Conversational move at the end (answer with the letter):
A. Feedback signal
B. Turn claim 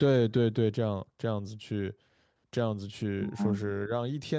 A